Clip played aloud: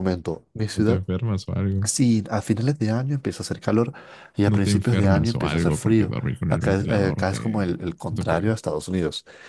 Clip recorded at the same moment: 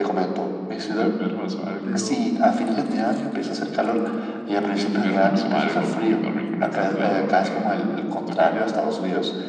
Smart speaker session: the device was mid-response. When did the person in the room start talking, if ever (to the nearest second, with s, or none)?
2 s